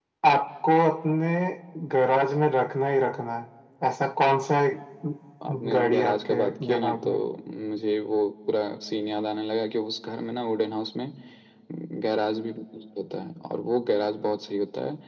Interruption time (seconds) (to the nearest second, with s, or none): 6 s